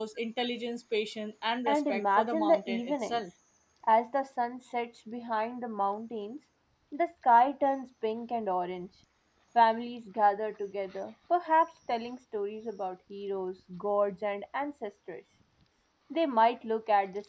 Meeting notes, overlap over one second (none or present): present